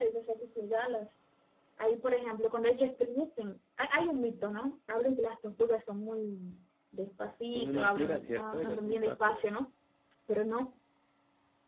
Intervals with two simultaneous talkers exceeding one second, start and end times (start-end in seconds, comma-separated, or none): 7.5-9.5